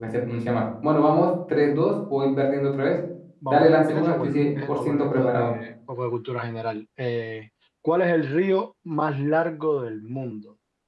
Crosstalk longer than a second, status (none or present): present